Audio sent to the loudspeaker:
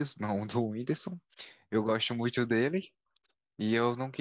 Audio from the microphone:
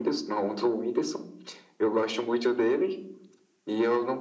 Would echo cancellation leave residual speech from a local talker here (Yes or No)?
No